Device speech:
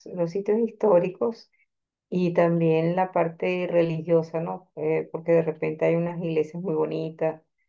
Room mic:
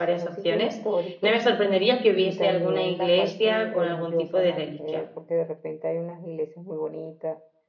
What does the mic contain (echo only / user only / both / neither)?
both